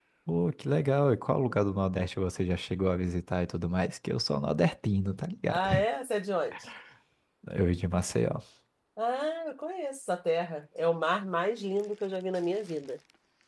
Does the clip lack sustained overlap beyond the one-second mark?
Yes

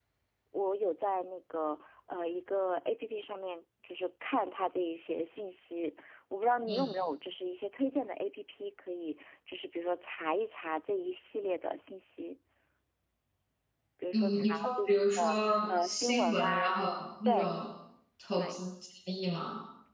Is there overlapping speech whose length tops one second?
Yes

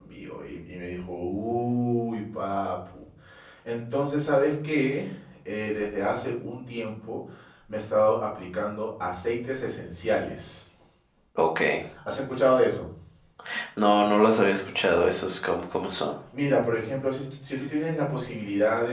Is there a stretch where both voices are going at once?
No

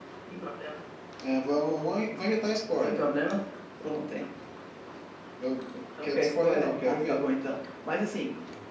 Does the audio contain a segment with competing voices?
Yes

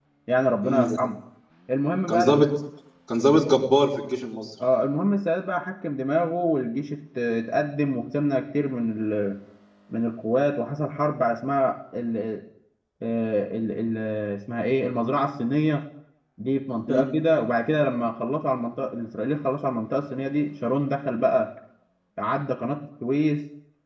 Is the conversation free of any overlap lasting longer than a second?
Yes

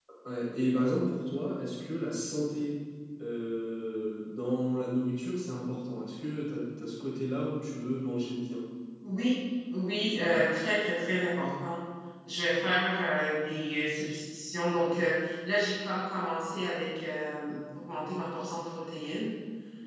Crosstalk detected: No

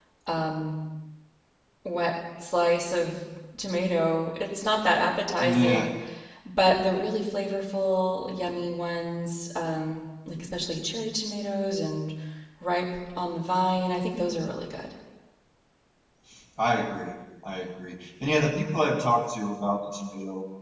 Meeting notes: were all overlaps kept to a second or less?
Yes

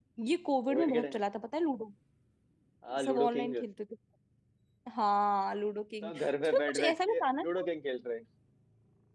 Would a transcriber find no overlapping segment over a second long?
No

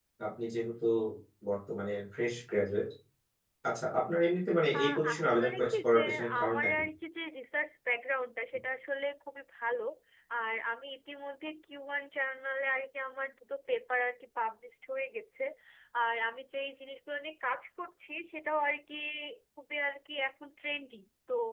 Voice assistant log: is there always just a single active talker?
No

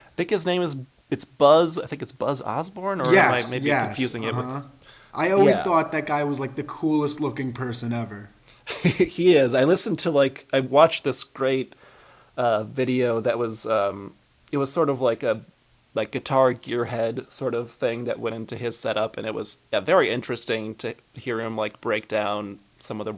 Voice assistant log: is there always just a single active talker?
No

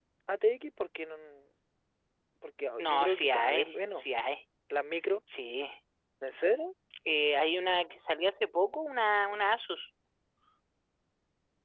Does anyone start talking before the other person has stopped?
Yes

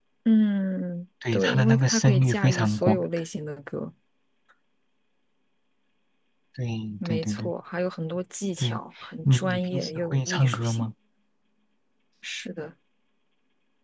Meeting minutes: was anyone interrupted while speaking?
Yes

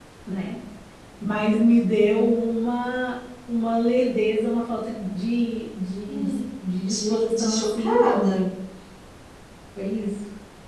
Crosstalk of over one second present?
Yes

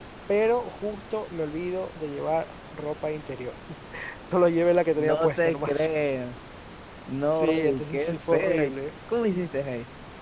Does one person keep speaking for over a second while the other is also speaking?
Yes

